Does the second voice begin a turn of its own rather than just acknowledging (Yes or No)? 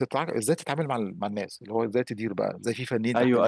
Yes